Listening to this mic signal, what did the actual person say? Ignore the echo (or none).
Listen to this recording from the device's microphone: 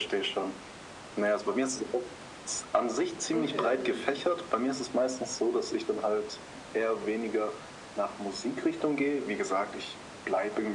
okay, mhm.